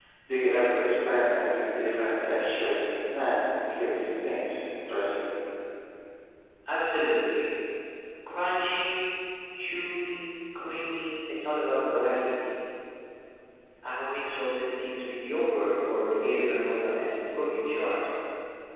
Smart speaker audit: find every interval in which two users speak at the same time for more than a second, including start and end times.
none

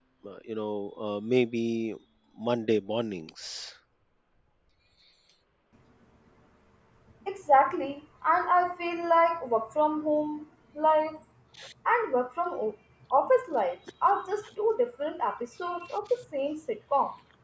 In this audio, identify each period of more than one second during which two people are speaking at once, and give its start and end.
none

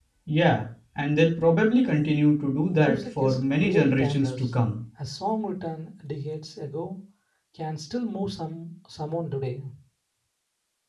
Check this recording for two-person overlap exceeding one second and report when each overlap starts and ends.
2.8-4.3

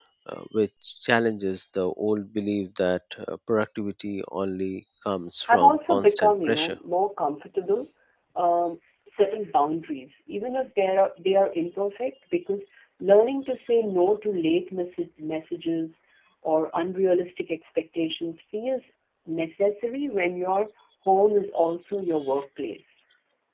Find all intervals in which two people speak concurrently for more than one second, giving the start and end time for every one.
5.5-6.8

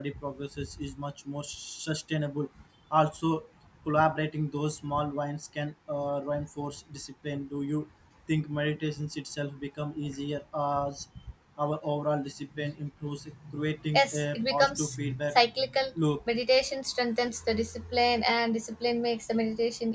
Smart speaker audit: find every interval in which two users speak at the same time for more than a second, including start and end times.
13.9-15.4

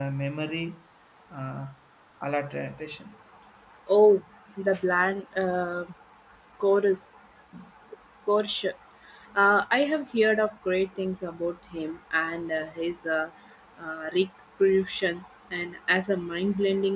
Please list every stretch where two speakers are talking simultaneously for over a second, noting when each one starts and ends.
none

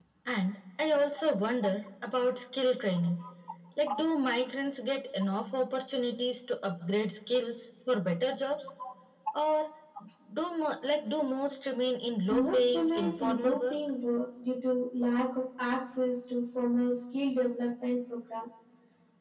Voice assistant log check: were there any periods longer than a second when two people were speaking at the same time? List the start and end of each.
12.3-13.8

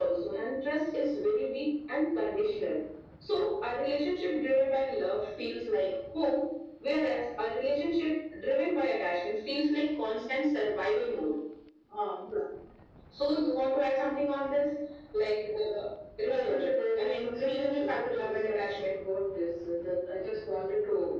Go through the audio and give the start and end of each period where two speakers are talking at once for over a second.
16.2-18.8

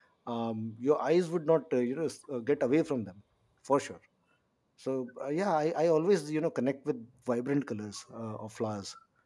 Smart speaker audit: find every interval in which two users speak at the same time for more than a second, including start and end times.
none

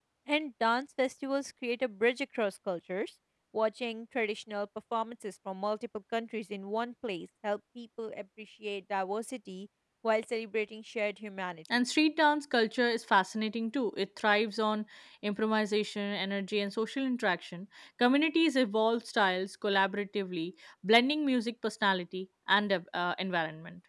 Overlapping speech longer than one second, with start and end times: none

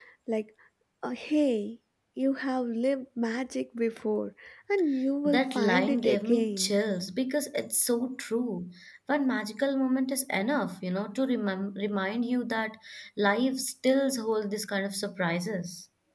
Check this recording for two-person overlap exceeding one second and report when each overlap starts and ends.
5.2-6.7

